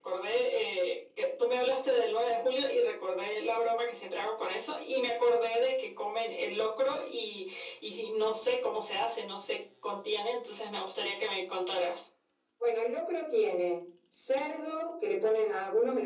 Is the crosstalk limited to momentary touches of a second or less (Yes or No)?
Yes